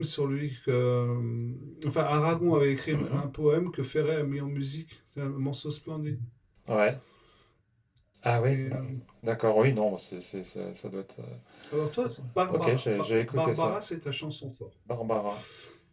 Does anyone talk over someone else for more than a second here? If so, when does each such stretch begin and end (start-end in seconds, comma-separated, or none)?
12.5-13.8